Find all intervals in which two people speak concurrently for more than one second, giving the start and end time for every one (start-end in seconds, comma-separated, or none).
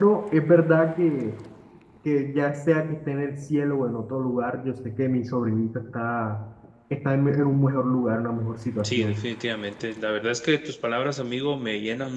none